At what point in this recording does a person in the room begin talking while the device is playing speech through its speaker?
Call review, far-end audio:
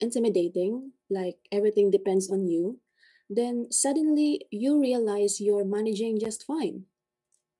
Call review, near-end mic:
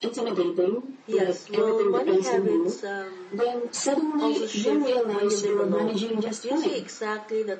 1.1 s

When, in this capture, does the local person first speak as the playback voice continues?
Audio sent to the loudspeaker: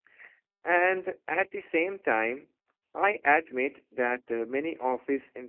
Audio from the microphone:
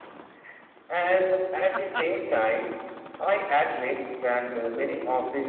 none

